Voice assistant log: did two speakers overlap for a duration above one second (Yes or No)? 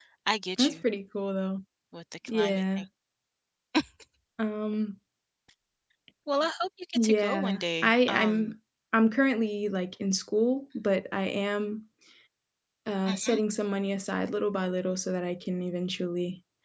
Yes